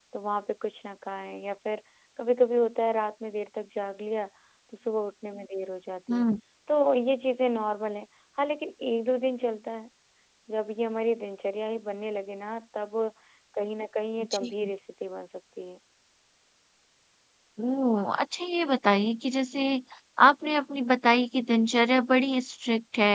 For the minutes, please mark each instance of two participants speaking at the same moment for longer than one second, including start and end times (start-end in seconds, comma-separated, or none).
none